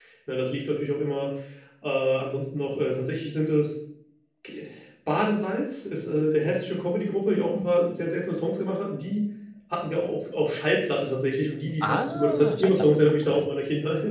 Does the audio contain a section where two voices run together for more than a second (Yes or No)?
Yes